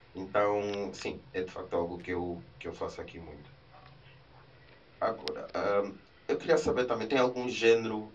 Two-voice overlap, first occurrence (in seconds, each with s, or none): none